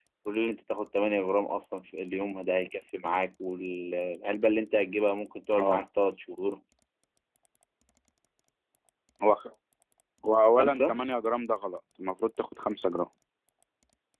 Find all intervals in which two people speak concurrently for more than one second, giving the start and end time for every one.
none

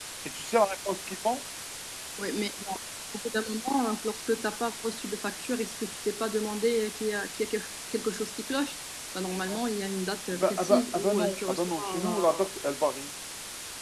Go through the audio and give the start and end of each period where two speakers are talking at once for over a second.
10.3-12.5

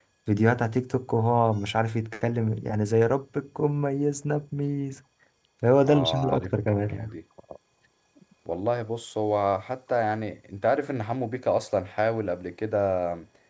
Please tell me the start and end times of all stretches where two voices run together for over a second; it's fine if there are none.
5.9-7.1

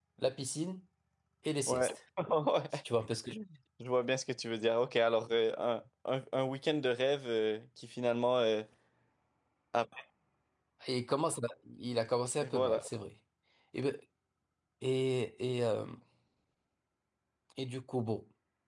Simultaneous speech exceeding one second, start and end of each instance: none

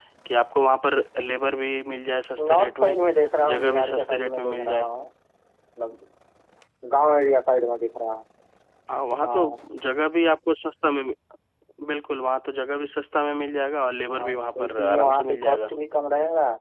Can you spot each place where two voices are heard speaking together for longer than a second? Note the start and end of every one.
3.5-4.9, 14.1-15.6

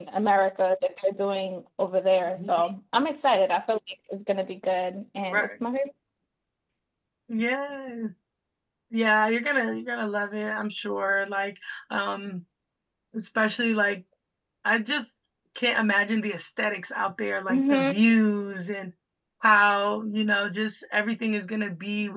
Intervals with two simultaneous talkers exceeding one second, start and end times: none

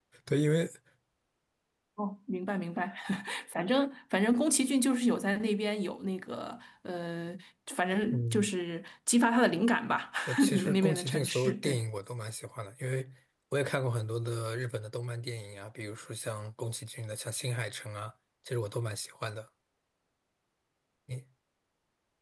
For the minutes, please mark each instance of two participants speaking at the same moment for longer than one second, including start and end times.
10.5-11.8

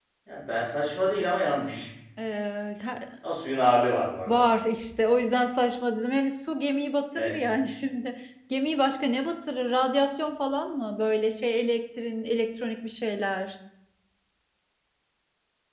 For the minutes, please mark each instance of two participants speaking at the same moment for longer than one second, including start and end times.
none

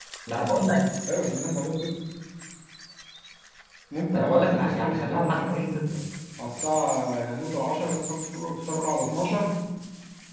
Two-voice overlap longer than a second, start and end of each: 4.1-5.7

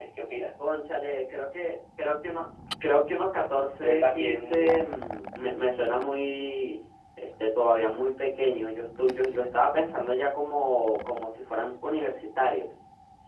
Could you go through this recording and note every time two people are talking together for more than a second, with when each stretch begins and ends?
3.8-5.0

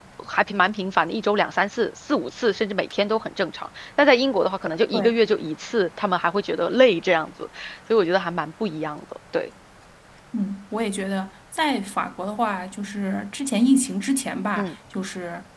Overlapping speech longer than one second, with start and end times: none

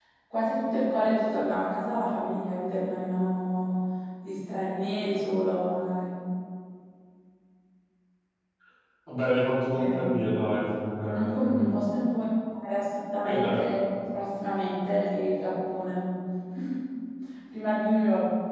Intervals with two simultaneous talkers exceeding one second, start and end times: none

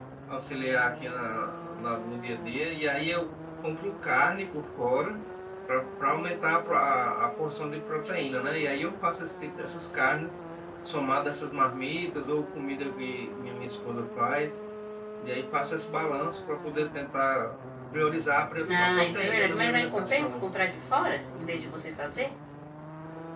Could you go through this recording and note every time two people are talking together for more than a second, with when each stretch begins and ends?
18.6-20.5

